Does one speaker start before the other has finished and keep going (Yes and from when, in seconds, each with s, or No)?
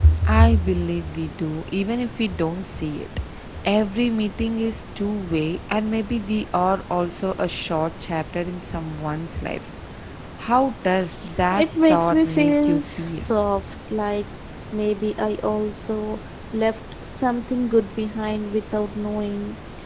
Yes, from 11.5 s